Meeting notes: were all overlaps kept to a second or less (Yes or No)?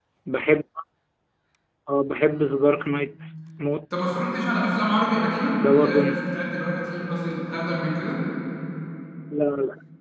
Yes